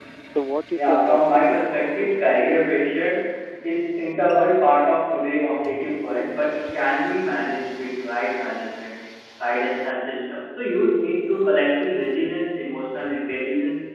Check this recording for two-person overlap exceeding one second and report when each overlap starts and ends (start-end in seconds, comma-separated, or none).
0.7-2.6